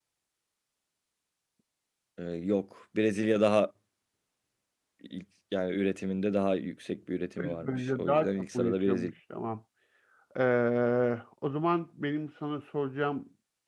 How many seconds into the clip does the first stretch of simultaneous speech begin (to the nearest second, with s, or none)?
7 s